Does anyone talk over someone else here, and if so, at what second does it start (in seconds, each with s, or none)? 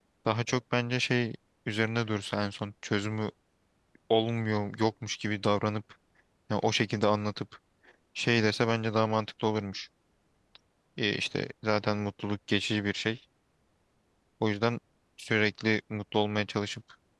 none